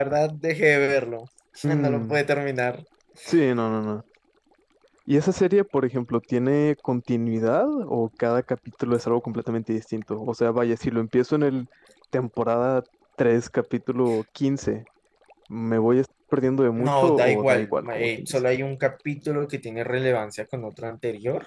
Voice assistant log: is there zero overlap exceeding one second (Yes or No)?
No